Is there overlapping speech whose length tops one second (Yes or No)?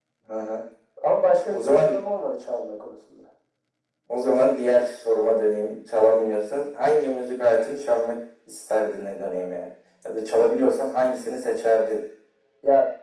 No